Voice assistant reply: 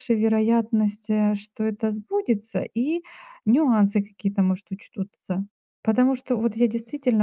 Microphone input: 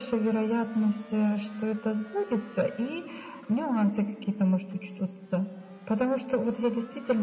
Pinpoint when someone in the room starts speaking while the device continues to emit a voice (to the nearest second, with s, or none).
none